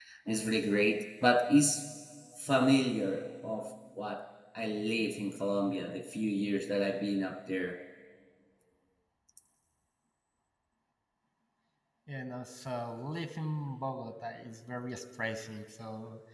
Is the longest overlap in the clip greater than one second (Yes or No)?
No